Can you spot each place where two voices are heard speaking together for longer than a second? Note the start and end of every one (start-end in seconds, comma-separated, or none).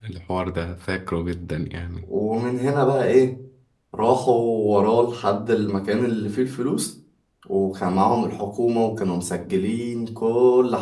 none